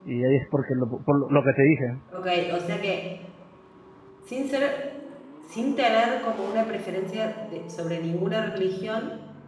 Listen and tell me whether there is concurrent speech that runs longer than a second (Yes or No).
No